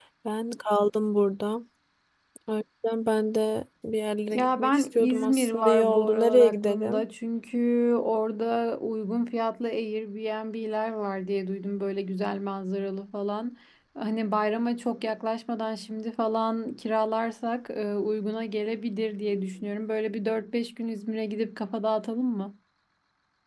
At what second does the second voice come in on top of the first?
4.3 s

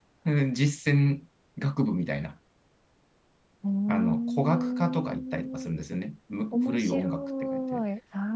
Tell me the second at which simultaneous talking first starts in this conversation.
3.9 s

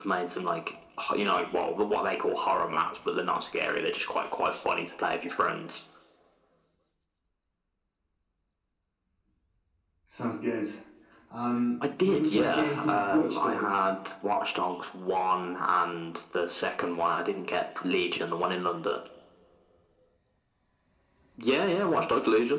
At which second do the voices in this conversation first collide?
12.0 s

